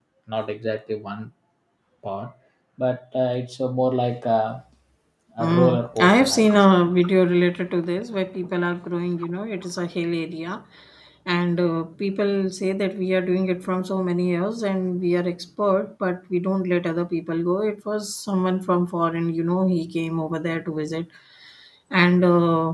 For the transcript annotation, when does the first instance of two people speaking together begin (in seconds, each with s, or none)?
5.4 s